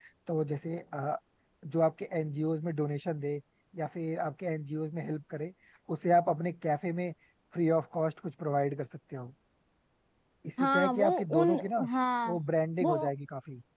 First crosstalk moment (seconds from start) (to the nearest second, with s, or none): 11 s